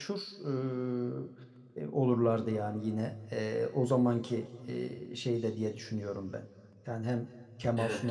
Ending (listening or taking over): listening